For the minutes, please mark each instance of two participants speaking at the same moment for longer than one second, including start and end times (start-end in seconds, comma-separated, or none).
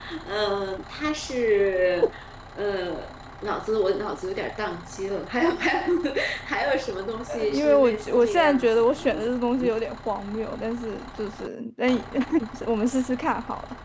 7.3-9.1